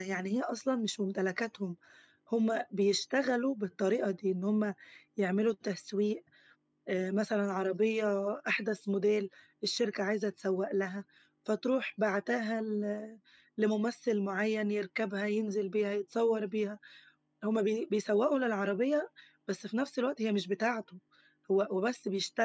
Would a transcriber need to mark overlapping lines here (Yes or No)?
No